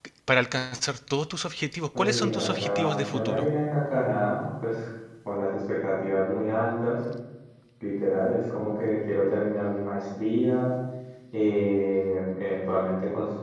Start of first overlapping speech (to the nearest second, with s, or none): 2 s